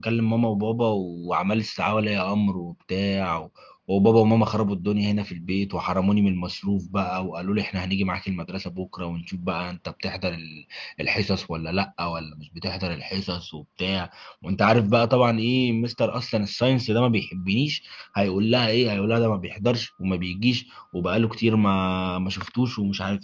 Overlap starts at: none

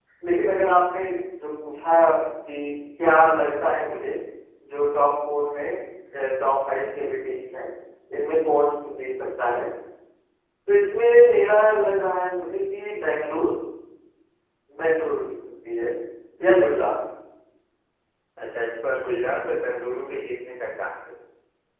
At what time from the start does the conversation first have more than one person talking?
none

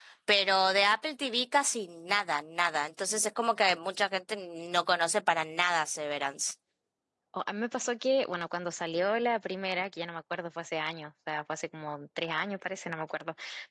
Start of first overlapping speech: none

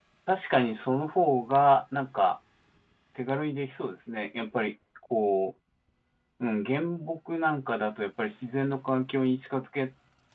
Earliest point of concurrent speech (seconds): none

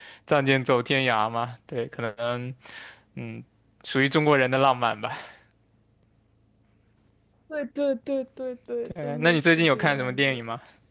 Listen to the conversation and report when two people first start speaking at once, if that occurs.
8.8 s

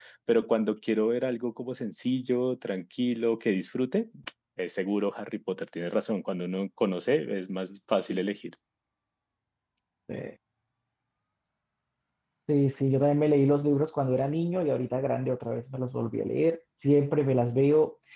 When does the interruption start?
none

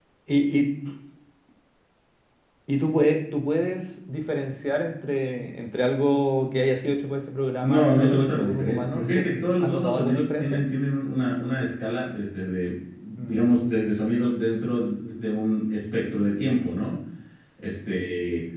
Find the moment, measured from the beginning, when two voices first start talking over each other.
7.6 s

